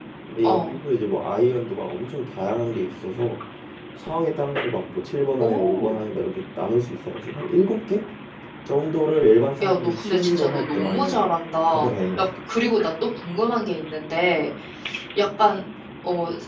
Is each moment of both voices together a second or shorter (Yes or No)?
No